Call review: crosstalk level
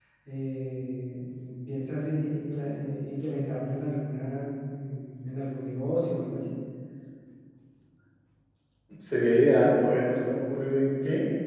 none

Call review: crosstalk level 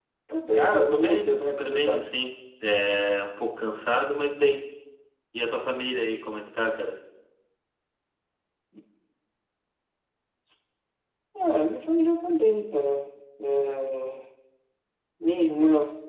present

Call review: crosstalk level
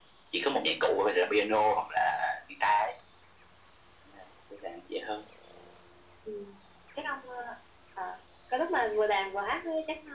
none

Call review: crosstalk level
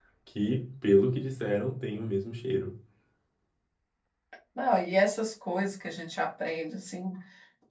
none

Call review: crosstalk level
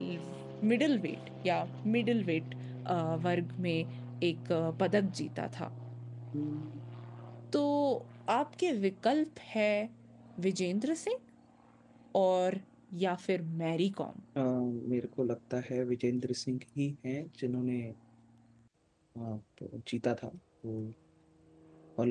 none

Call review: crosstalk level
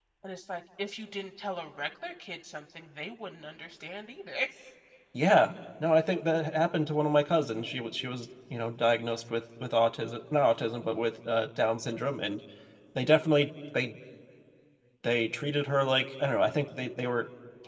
none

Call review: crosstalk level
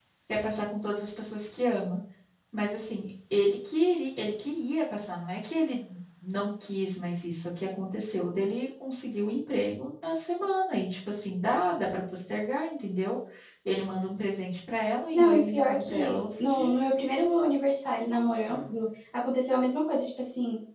present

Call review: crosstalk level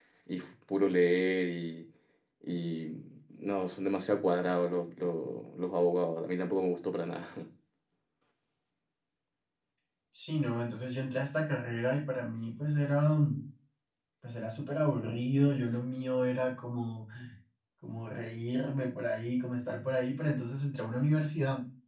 none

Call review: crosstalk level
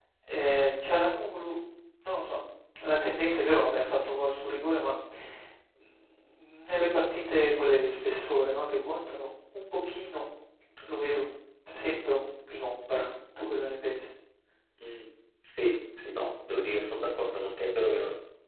none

